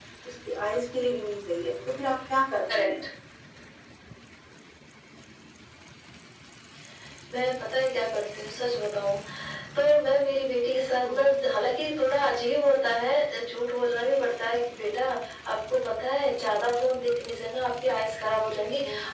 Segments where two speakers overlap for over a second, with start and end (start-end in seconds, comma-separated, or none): none